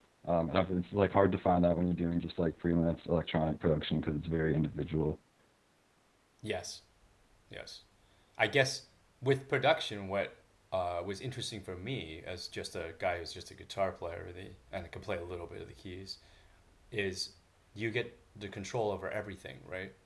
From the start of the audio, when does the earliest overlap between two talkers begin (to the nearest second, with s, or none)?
none